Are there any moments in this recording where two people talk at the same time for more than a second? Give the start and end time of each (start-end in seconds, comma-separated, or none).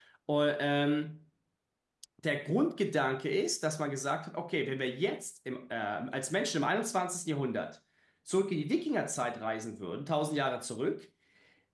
none